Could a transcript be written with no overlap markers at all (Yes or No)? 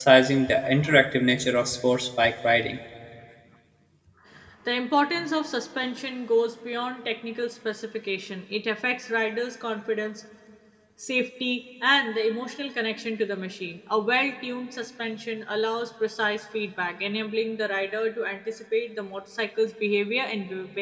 Yes